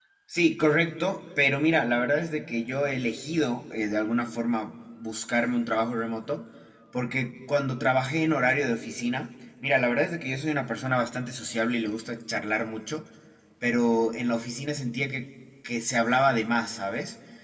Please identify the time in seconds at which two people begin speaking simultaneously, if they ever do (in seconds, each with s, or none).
none